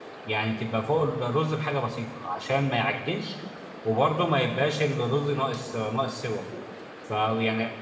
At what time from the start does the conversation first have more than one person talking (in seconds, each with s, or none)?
none